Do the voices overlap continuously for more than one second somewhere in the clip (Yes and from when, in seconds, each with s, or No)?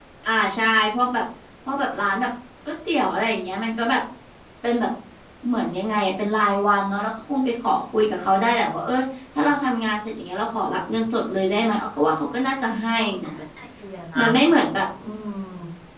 No